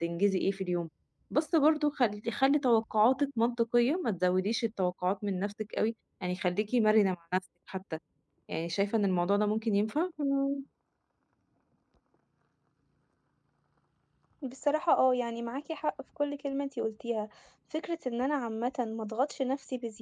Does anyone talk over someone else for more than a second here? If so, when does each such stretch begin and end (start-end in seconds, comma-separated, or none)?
none